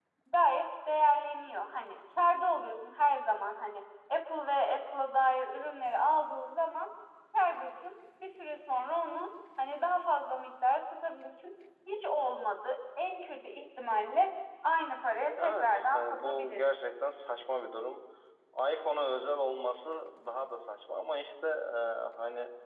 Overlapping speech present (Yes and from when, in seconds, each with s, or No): Yes, from 15.4 s